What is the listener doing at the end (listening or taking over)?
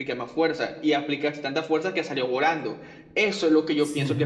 listening